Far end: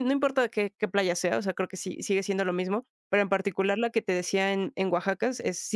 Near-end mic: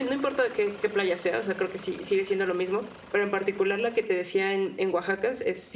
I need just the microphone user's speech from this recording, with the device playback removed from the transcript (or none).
none